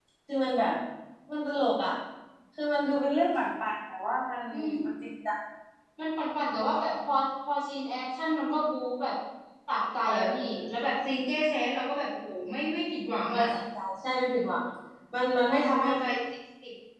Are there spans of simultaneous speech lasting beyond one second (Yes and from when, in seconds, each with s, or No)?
No